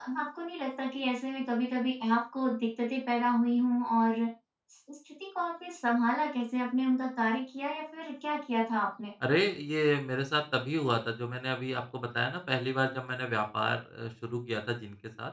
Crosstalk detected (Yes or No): No